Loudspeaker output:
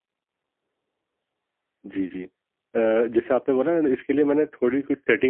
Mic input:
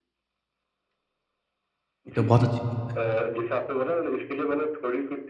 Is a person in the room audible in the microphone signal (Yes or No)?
Yes